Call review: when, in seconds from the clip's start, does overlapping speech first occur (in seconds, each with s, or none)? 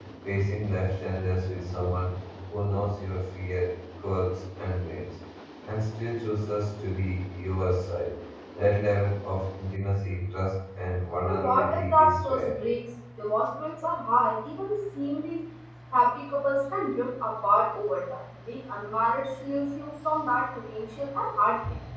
11.2 s